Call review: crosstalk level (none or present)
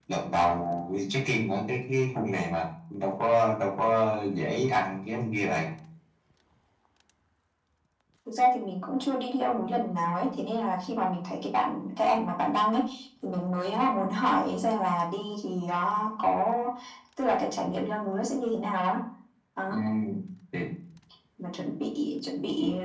none